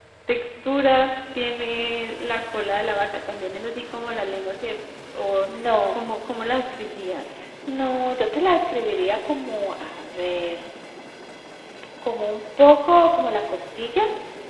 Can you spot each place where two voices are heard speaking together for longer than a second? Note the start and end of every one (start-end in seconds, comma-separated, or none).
none